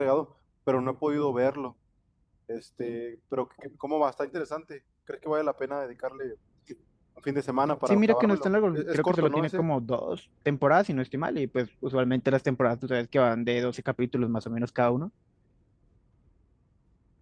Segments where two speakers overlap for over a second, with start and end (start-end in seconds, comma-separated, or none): 7.9-9.6